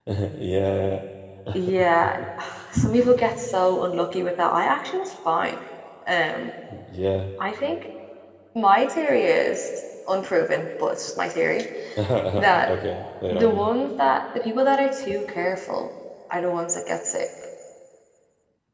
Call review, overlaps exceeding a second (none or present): none